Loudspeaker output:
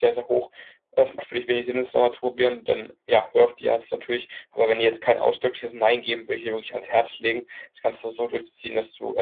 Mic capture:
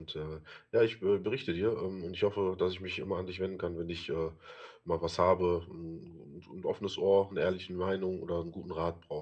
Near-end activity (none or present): present